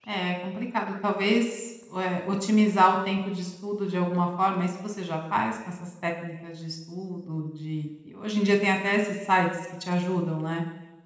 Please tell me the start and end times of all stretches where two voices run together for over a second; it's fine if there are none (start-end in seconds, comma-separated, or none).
none